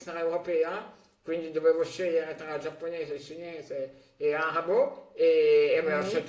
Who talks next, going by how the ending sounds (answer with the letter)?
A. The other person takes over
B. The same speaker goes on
B